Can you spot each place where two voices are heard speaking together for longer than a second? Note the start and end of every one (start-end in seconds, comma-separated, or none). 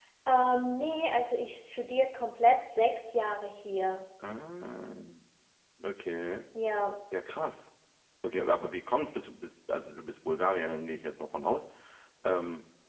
none